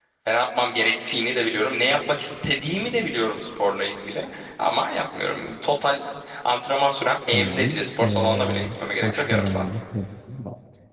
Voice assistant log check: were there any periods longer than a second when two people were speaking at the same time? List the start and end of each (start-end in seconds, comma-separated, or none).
7.3-9.6